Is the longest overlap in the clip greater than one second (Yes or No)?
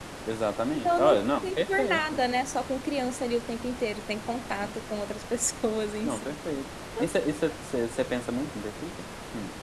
Yes